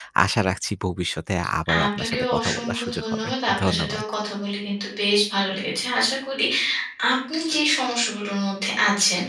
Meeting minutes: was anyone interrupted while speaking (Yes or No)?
Yes